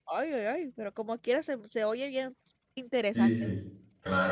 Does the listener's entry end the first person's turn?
Yes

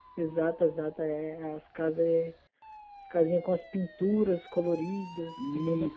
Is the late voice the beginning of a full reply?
Yes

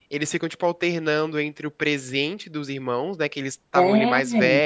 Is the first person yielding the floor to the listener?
No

